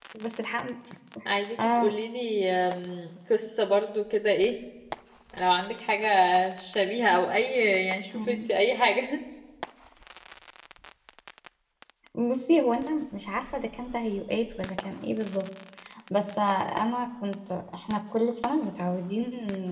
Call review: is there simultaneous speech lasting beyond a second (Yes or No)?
No